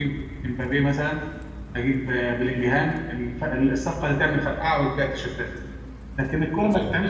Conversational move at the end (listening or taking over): listening